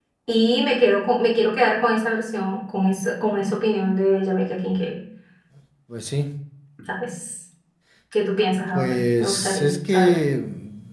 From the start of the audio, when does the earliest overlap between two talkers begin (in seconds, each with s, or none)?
8.8 s